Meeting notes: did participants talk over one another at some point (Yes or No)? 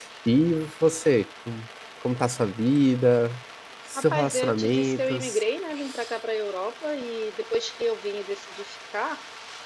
Yes